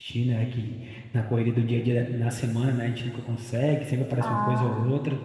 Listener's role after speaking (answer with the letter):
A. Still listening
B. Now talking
A